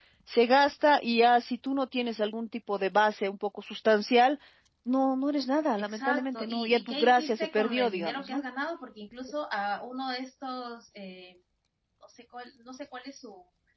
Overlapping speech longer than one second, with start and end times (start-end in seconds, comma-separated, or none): 5.8-8.4